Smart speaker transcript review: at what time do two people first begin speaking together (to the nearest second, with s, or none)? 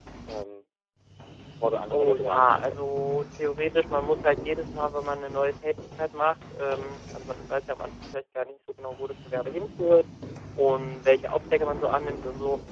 2 s